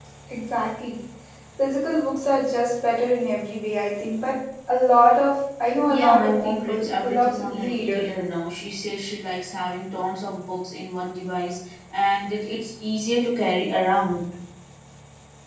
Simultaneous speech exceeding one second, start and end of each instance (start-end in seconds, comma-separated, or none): 5.9-8.0